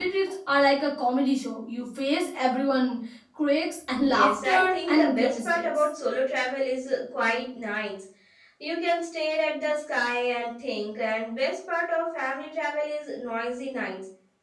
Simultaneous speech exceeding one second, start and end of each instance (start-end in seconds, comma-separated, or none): 4.1-5.9